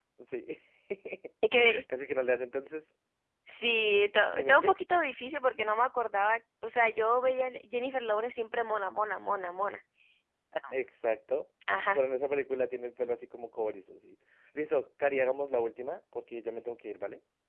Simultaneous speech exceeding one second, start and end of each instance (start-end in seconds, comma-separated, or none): none